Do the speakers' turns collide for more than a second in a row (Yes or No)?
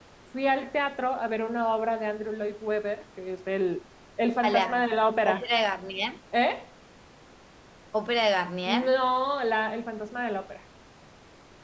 No